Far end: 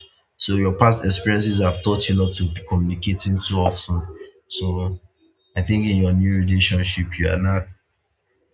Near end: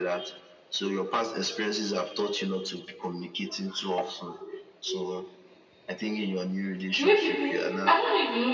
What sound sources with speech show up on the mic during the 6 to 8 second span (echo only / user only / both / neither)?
both